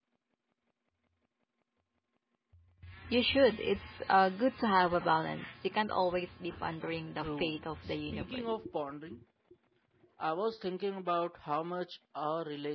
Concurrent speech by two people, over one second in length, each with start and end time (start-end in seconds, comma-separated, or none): 7.2-8.6